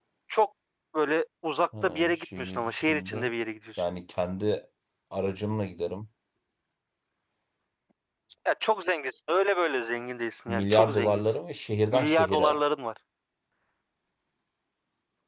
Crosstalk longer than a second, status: present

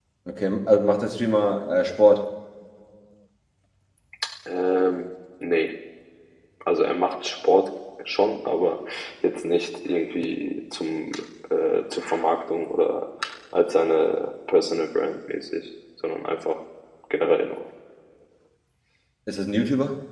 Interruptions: none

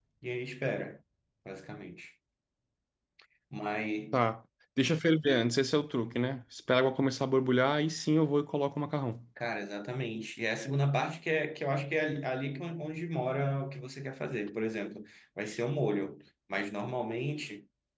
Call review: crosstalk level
none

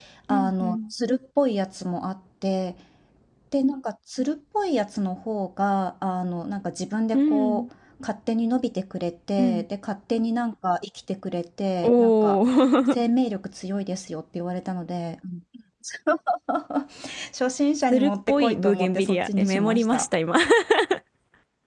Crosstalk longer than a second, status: present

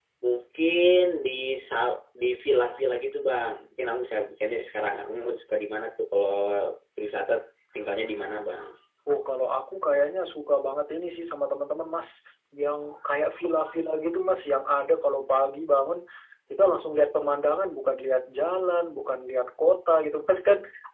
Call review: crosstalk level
none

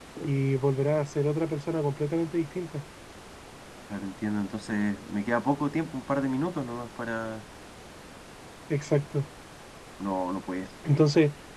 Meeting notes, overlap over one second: none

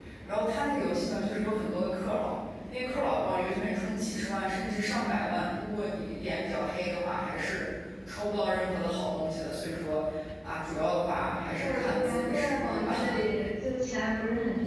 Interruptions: present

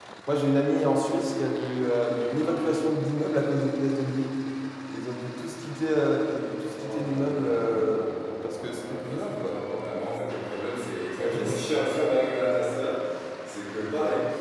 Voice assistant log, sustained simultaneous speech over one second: present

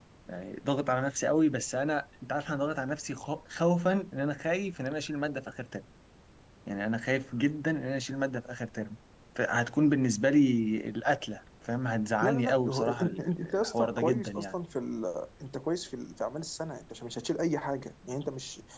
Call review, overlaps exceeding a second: present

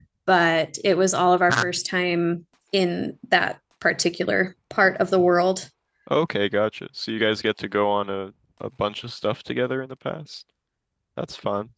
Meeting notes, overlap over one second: none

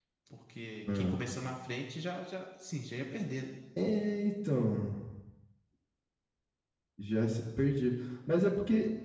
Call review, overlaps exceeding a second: none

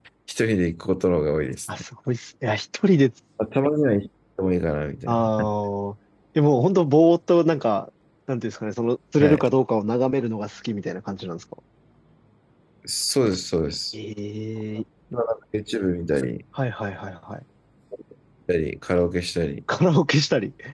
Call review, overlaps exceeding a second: none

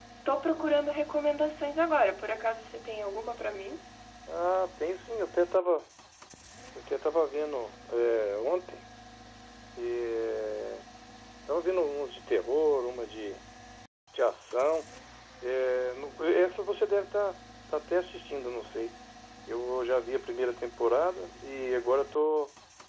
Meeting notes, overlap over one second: none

